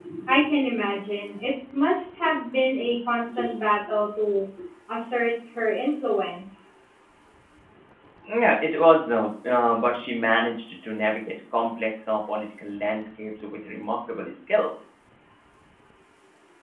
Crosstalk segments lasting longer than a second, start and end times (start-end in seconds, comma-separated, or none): none